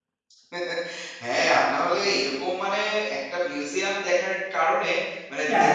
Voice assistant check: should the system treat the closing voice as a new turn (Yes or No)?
No